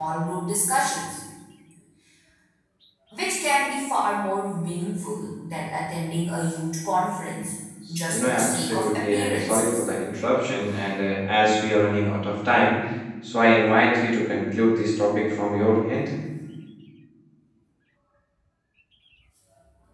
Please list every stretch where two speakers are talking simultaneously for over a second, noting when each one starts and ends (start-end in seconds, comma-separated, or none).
8.1-9.9